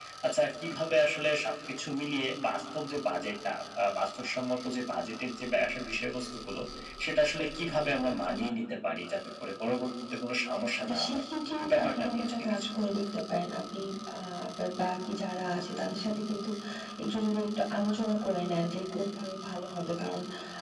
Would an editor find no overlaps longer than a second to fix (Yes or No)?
No